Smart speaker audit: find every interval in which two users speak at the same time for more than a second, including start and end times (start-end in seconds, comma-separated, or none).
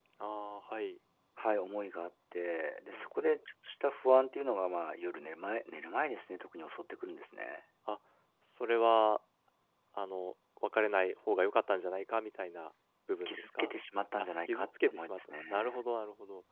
14.2-15.8